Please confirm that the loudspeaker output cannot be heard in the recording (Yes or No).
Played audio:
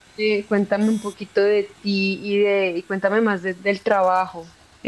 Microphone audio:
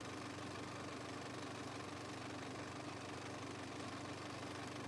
Yes